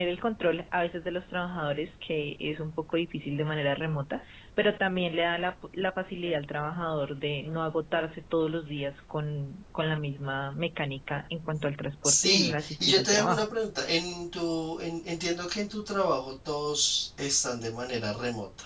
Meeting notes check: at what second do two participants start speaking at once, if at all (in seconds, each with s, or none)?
12.0 s